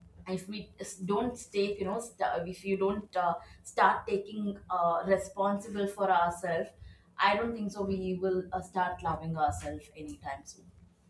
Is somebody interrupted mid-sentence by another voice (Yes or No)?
No